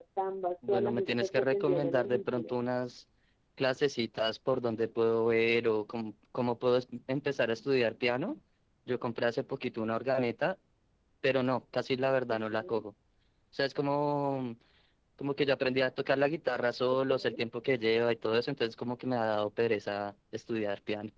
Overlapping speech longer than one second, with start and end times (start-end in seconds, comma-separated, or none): 0.7-2.5